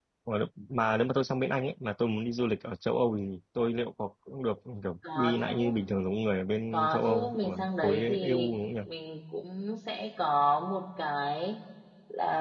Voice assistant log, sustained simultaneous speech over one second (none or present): present